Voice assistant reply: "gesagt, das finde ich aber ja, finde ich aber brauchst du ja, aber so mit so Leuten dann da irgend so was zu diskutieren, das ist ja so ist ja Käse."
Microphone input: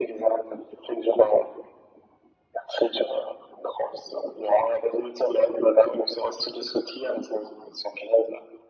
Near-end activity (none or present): none